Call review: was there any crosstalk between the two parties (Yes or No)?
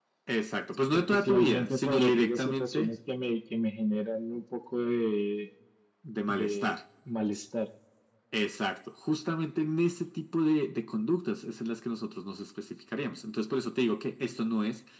Yes